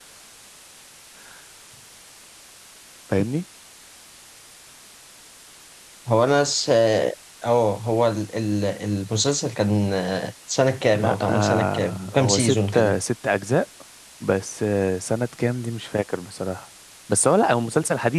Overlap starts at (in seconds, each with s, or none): 10.9 s